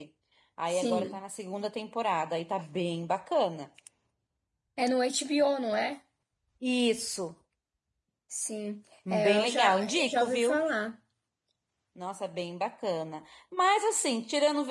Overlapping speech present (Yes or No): Yes